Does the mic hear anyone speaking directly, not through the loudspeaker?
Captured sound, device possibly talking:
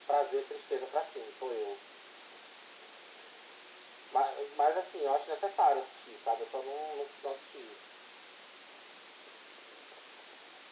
No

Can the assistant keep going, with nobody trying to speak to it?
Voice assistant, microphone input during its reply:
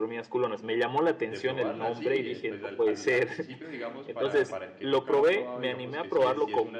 No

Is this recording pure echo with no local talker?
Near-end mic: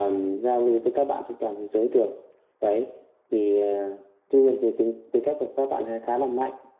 Yes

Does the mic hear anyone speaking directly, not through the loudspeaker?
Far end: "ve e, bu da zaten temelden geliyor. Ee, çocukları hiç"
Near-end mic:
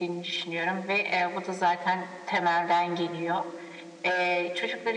No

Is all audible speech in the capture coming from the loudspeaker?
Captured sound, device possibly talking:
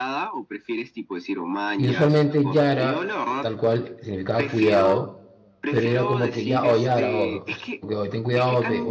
No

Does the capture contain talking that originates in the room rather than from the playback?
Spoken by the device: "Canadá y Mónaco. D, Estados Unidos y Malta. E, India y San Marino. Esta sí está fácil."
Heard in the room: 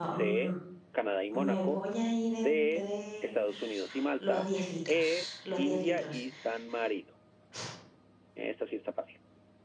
Yes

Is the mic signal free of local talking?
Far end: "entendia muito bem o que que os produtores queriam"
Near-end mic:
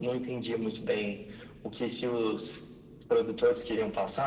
Yes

